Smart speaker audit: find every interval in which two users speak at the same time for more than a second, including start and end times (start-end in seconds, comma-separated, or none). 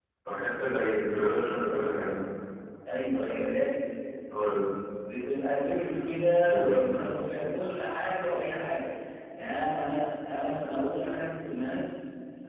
none